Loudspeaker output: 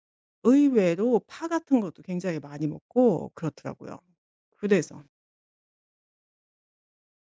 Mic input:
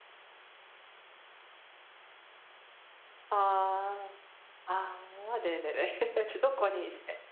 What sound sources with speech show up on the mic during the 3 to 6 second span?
user only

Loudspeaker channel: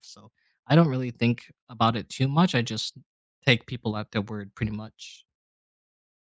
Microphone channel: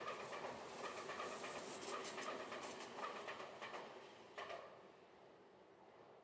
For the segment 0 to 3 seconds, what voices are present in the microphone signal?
neither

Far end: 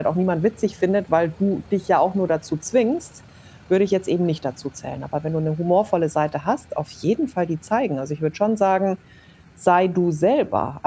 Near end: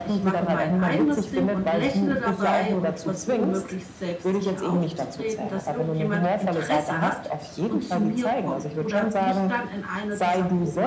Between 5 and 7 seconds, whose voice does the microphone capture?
both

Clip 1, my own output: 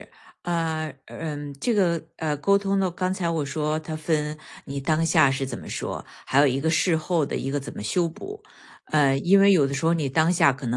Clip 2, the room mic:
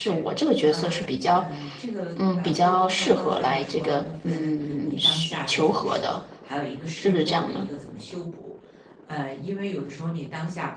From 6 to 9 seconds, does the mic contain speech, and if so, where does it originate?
both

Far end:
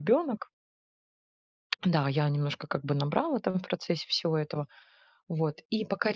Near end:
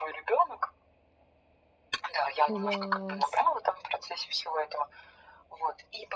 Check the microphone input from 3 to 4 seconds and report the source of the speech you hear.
both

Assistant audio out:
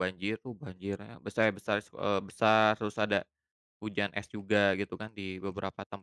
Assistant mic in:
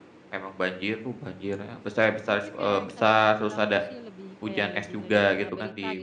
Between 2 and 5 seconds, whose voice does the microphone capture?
both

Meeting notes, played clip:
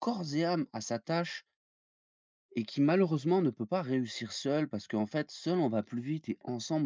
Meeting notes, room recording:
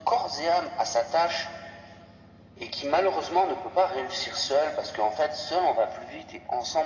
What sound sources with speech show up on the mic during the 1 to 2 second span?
echo only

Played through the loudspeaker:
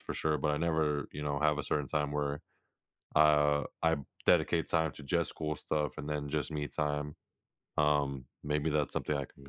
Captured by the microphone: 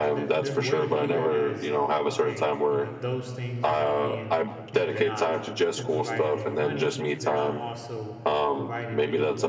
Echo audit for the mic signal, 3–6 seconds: both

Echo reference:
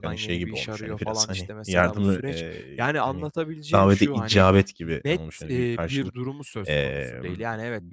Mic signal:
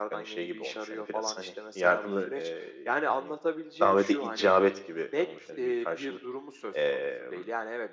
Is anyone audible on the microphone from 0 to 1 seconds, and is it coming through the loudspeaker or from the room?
echo only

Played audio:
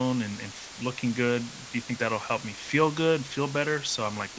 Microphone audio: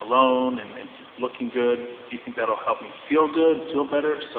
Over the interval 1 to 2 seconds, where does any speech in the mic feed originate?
echo only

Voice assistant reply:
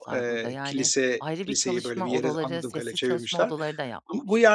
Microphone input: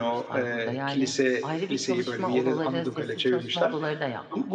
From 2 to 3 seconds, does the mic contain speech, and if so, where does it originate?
echo only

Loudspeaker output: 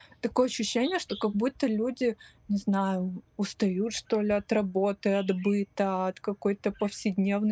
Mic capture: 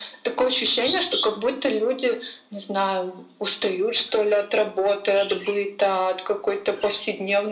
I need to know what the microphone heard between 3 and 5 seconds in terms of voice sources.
echo only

